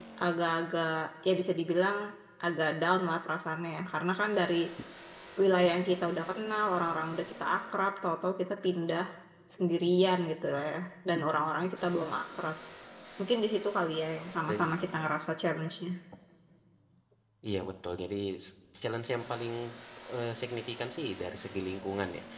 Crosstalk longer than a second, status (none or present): none